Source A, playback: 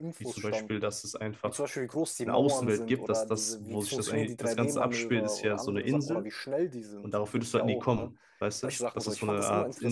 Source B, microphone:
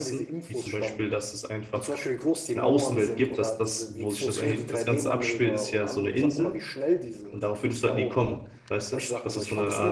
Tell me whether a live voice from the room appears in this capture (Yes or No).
No